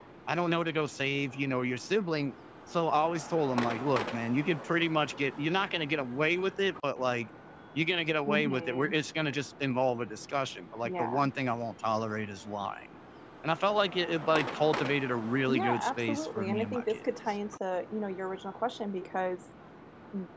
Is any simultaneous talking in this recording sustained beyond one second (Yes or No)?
Yes